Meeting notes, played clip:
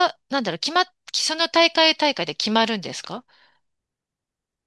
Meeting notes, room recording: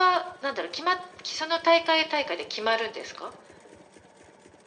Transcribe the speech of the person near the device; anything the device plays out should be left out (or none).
none